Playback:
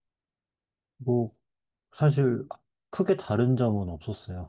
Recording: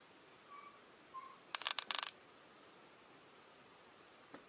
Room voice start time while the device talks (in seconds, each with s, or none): none